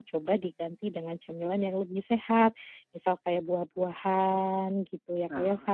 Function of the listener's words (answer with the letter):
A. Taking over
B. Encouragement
B